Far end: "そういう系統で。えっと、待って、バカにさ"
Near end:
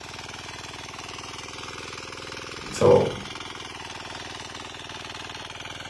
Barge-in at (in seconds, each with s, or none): 2.7 s